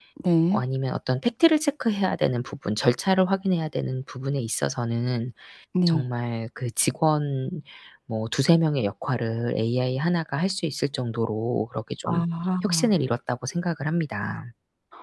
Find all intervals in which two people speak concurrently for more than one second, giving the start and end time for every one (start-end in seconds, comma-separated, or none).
none